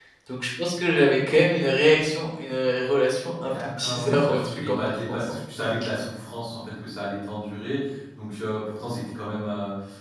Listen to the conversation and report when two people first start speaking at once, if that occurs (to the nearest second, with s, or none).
3 s